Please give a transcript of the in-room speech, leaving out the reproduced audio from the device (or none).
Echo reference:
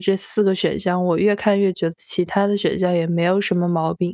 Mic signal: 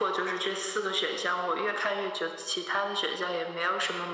none